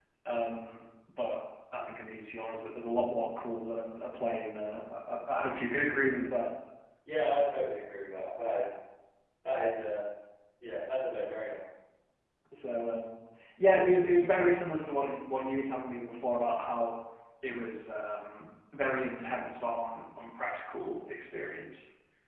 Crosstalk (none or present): none